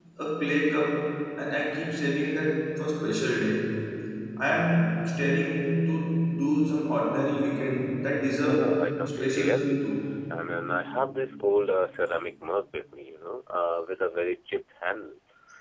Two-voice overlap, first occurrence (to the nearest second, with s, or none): 8 s